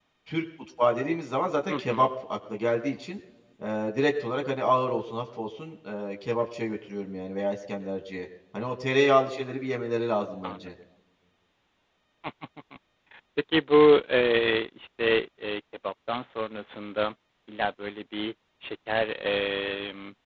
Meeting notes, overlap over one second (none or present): none